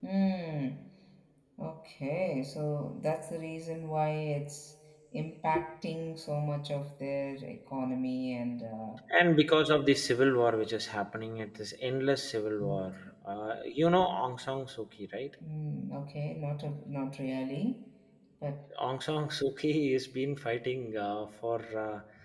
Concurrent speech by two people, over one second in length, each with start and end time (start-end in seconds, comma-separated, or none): none